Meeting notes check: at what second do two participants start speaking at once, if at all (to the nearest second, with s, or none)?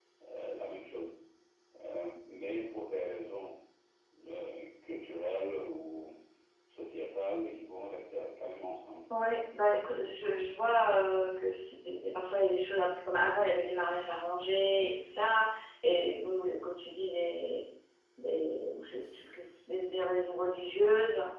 none